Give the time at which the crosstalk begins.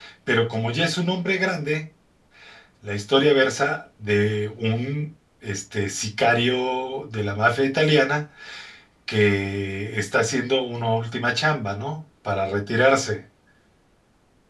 none

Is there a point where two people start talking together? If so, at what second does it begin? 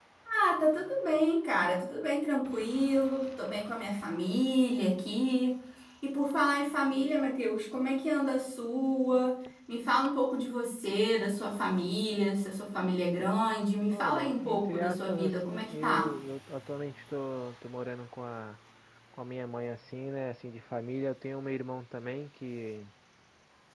13.9 s

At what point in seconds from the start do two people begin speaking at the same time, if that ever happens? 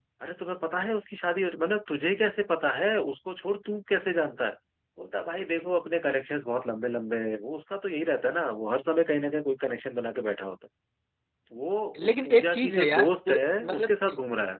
12.0 s

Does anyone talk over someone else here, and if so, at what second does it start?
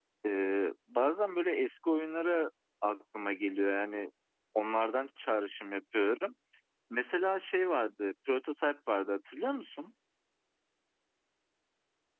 none

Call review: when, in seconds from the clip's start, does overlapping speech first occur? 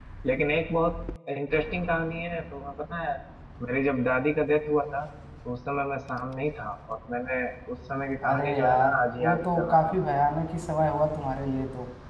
8.2 s

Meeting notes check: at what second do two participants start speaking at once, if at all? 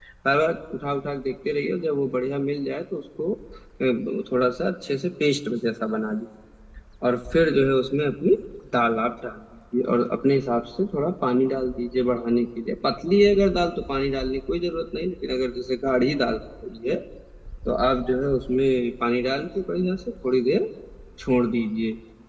none

